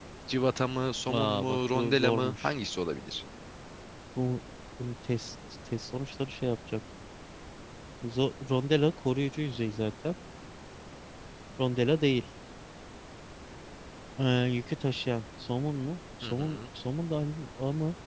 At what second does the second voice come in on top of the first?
1 s

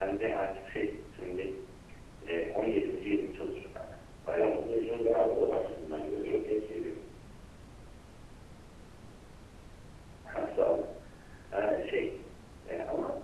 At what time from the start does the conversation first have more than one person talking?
4 s

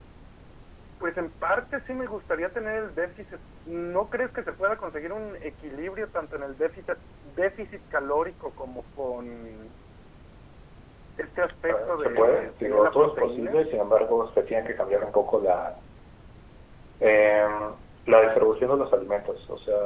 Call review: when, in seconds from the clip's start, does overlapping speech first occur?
12 s

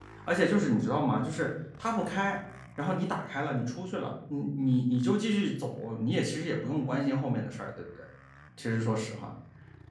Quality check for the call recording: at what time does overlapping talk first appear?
none

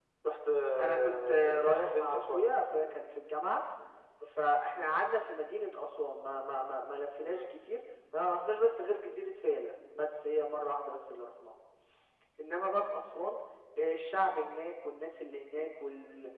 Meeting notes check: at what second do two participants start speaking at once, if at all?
1 s

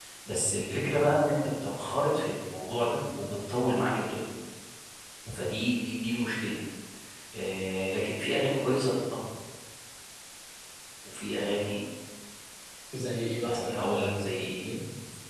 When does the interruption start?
13 s

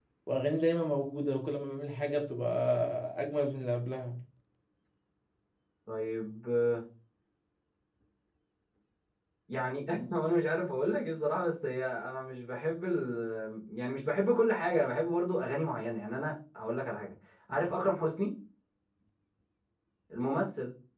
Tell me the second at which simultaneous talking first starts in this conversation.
none

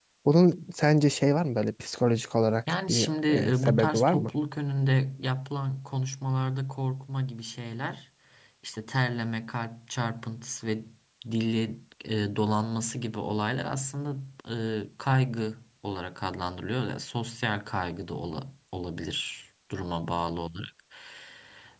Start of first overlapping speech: 3 s

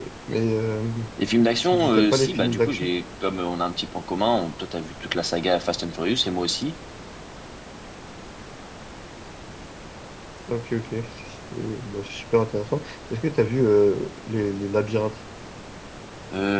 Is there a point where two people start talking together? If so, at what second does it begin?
2 s

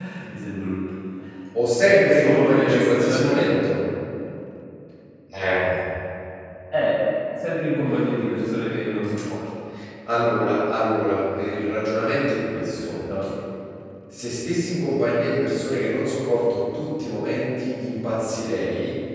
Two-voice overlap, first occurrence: 2 s

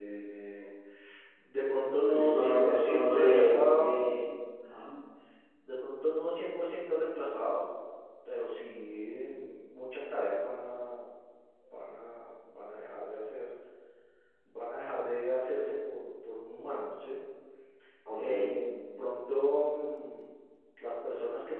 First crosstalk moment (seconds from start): 2 s

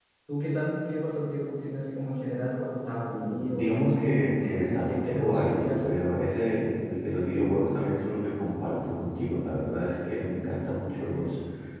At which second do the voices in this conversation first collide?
3 s

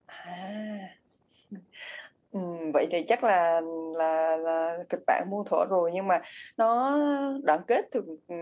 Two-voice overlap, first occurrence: none

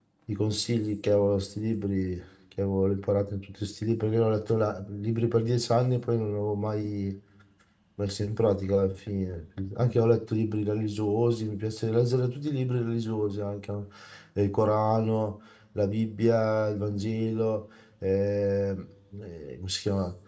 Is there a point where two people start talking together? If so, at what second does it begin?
none

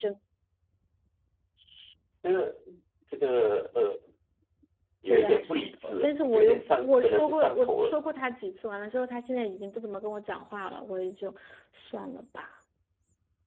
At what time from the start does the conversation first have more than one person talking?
5 s

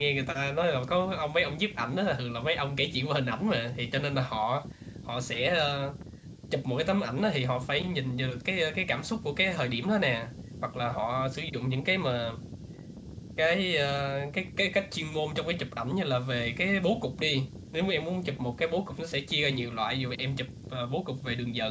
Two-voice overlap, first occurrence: none

